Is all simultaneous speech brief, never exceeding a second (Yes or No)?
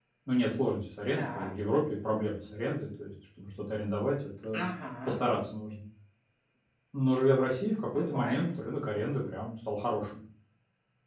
Yes